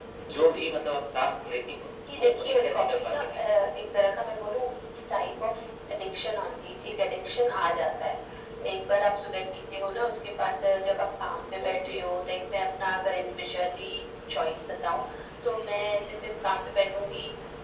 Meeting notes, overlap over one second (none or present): present